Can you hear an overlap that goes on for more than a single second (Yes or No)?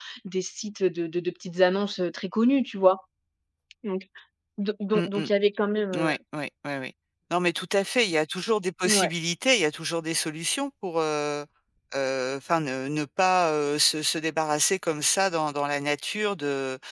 No